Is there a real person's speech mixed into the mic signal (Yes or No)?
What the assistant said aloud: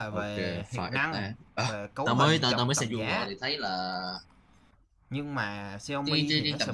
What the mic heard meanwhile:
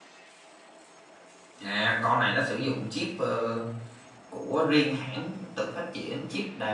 Yes